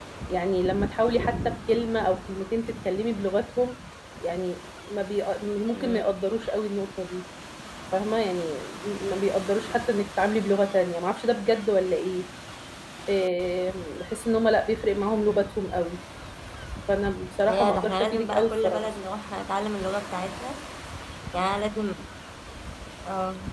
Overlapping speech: Yes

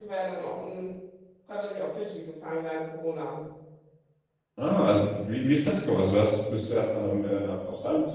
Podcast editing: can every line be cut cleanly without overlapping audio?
Yes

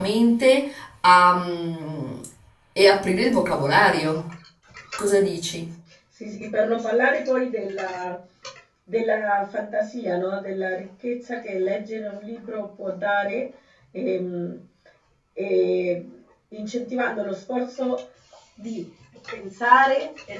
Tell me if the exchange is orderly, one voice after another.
Yes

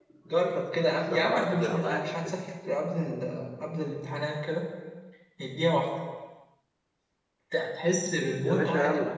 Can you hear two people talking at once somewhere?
Yes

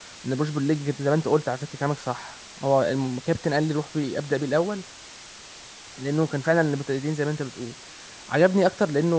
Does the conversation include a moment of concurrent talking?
No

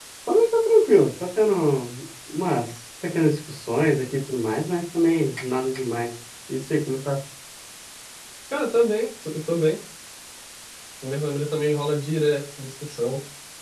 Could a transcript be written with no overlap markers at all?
Yes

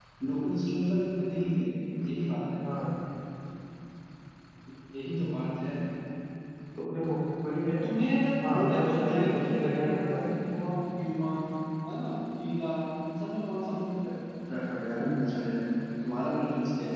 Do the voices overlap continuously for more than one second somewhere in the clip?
Yes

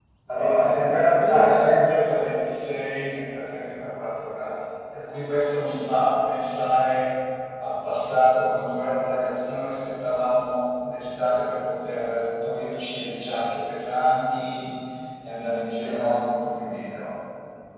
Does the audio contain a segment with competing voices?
Yes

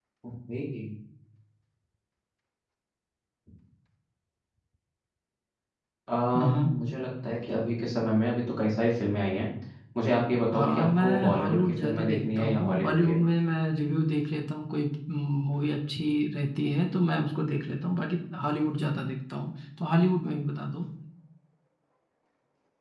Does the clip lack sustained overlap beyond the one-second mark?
No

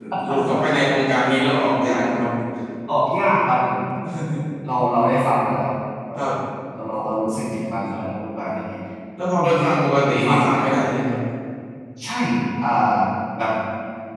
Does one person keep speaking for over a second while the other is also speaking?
Yes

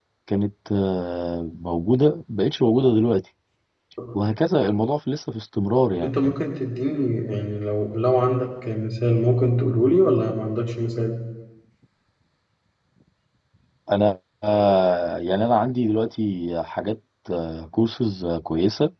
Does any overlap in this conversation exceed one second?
No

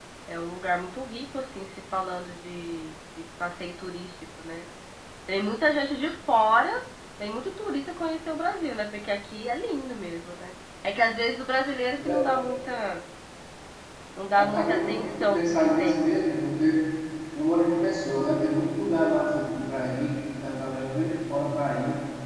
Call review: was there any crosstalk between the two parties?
Yes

